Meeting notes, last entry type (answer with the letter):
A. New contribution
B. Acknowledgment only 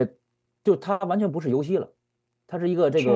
B